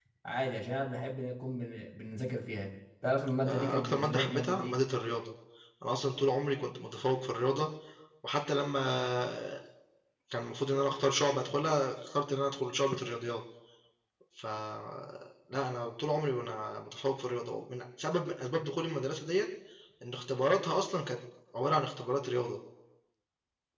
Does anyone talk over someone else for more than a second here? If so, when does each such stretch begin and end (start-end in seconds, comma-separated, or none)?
3.5-4.8